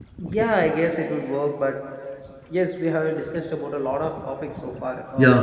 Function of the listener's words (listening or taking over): taking over